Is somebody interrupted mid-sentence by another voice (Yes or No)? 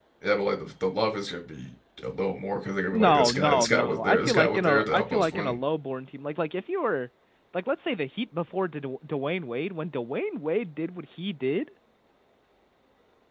Yes